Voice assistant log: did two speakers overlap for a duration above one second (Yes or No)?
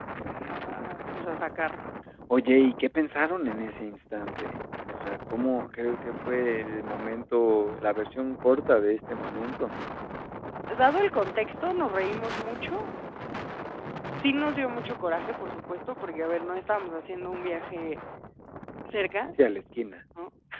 No